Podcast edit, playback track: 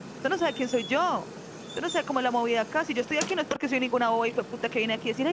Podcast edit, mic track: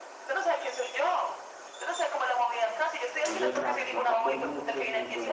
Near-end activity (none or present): present